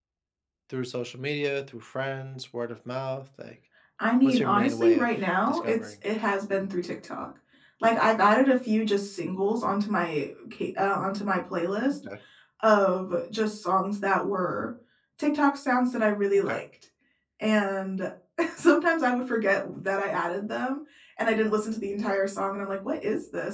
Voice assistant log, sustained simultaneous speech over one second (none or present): present